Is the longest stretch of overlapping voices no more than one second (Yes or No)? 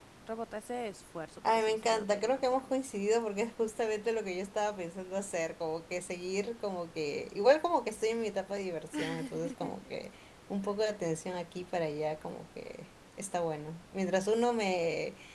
No